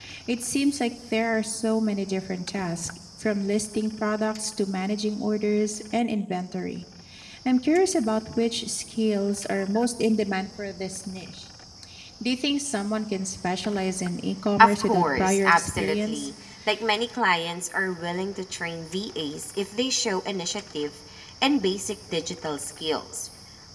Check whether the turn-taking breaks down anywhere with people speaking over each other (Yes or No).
Yes